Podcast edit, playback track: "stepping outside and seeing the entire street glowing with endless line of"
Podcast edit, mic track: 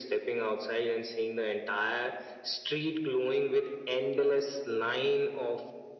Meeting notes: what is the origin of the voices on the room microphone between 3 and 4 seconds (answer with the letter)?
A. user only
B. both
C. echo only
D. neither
C